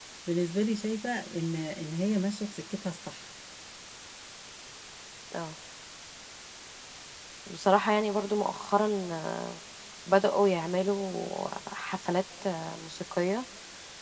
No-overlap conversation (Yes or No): Yes